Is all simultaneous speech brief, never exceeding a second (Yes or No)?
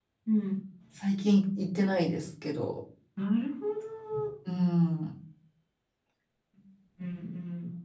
Yes